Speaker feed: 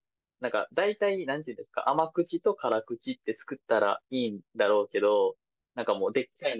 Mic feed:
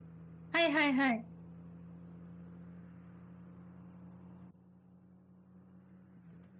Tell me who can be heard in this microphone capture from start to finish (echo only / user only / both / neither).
user only